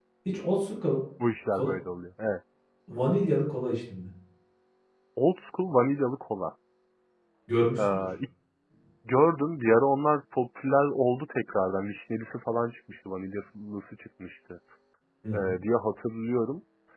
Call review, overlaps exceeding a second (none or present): none